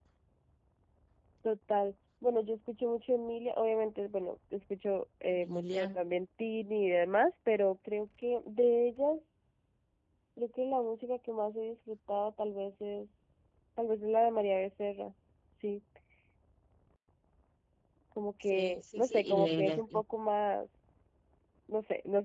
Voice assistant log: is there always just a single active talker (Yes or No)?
No